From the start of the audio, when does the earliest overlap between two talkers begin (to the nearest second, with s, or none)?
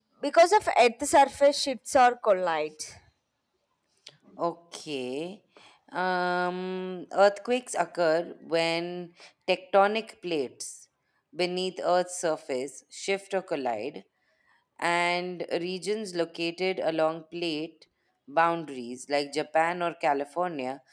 none